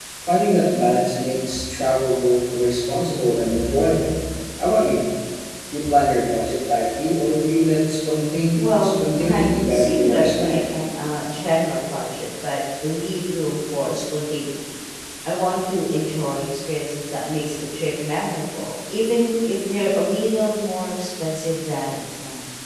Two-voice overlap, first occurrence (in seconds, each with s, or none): 8.5 s